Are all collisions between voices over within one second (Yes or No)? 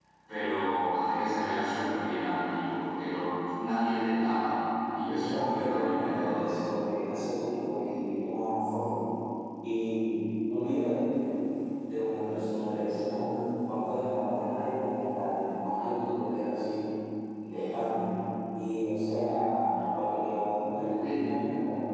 No